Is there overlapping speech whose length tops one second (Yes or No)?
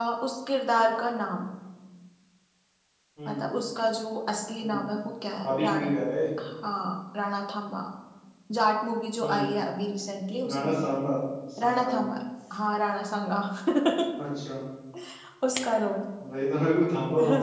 No